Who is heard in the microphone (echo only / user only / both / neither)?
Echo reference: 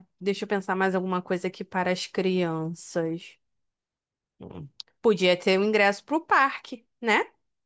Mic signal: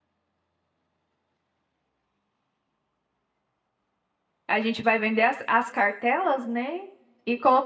user only